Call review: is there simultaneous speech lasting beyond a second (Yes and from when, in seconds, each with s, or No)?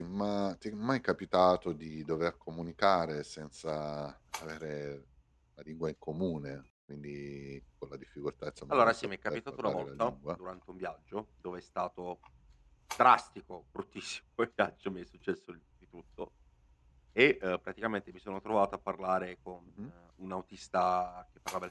Yes, from 8.7 s